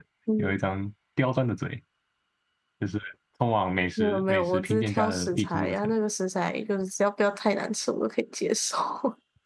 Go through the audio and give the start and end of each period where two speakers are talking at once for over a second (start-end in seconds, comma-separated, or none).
4.0-5.9